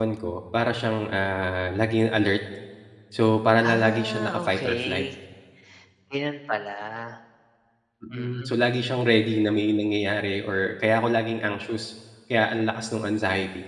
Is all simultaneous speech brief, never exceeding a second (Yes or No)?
No